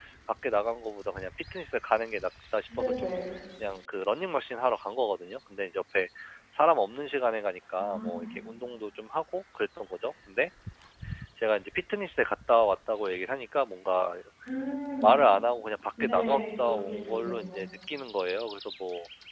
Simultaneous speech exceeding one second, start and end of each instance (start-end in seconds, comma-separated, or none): 16.0-17.6